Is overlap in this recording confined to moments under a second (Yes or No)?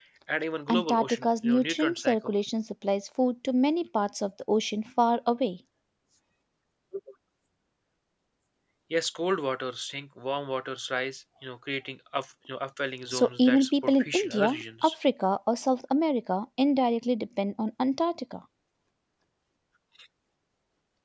No